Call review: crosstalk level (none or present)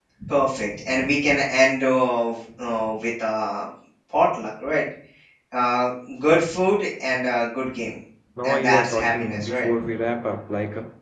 present